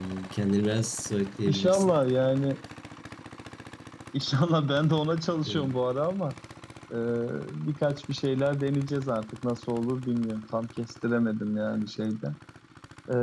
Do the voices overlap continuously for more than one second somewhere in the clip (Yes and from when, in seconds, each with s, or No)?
No